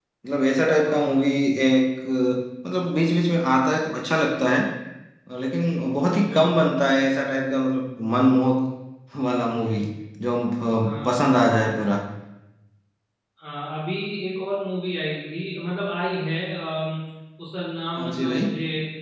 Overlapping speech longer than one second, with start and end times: none

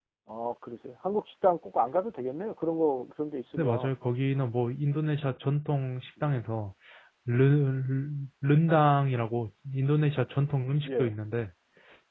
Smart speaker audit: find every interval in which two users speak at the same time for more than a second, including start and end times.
none

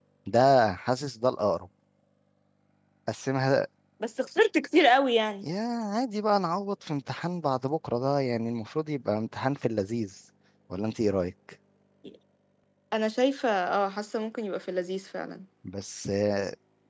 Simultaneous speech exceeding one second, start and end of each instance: none

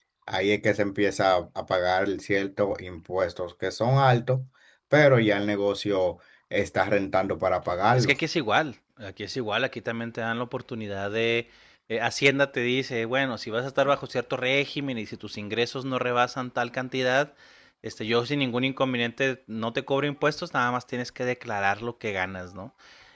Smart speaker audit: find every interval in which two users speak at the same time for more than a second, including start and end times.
none

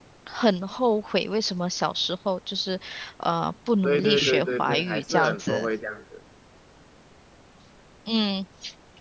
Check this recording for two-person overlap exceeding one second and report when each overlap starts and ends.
3.8-5.7

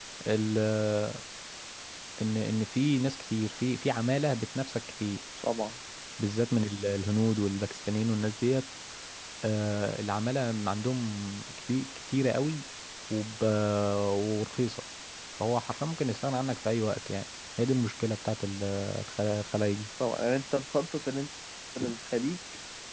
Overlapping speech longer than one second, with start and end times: none

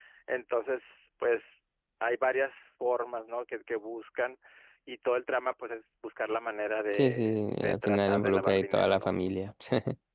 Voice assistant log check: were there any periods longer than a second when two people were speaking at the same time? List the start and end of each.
6.9-9.2

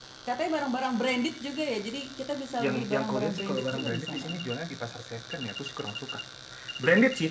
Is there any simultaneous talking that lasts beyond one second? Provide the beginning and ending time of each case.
2.6-4.4

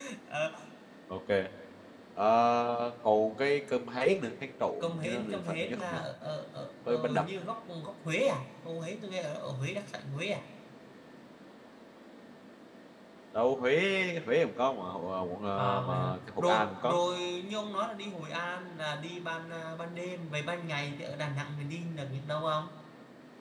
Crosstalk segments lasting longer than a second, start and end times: 4.8-6.0, 15.5-17.0

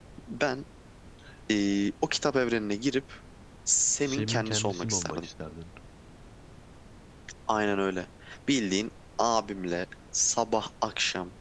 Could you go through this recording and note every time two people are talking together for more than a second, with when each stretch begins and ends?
4.0-5.3

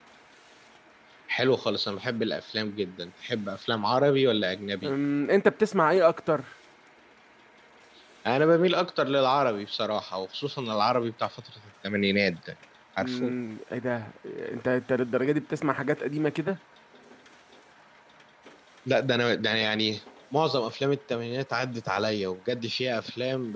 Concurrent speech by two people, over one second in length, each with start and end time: none

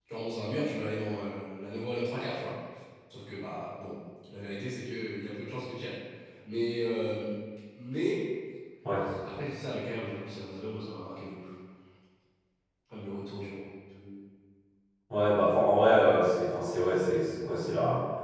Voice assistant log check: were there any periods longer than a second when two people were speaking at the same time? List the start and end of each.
none

